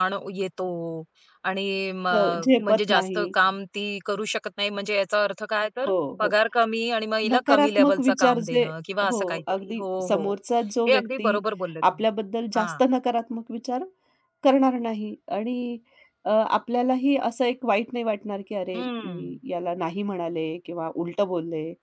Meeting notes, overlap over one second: present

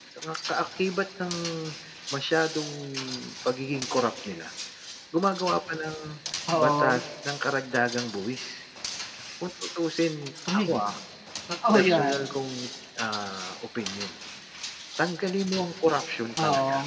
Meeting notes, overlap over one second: none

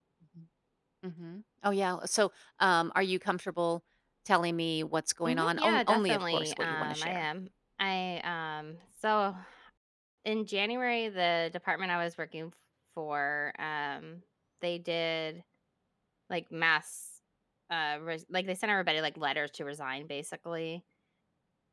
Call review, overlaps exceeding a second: present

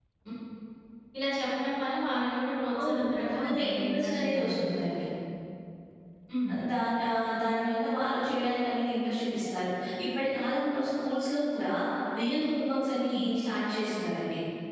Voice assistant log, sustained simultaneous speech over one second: present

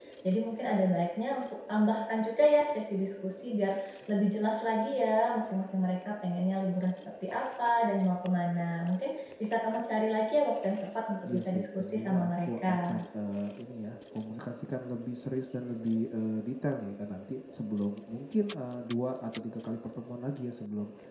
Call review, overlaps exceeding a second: present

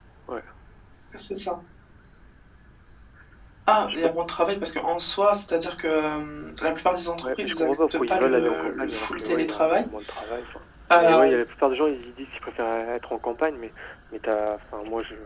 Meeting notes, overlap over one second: present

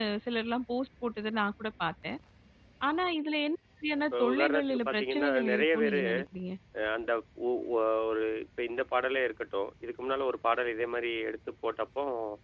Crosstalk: present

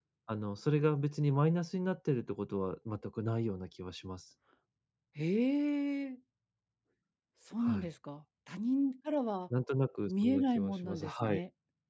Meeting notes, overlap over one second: present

